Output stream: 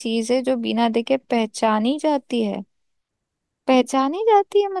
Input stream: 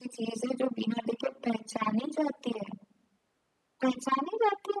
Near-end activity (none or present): none